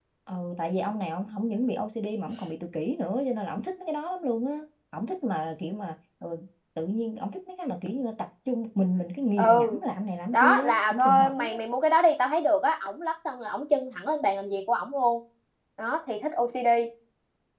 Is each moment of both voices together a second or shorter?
No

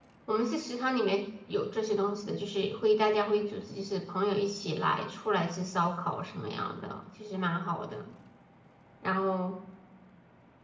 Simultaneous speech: No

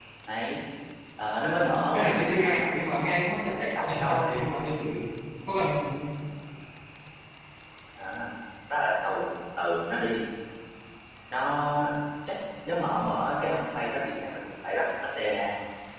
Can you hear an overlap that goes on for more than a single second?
Yes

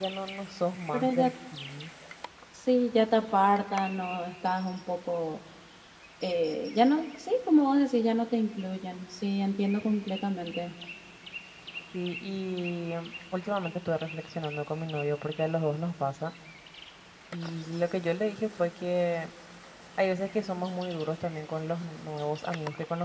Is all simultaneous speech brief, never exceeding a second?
Yes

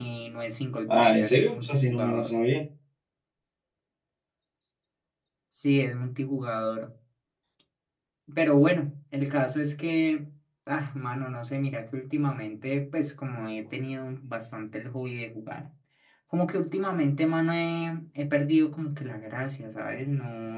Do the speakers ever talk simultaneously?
Yes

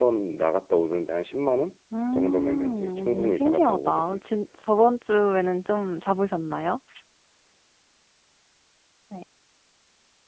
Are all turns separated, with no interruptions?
No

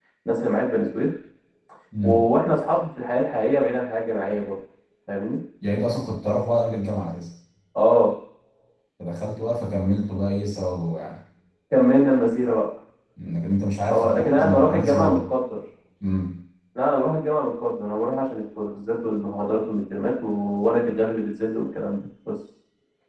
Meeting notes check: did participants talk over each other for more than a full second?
Yes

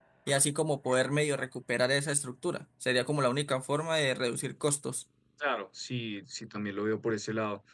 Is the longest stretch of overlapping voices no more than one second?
Yes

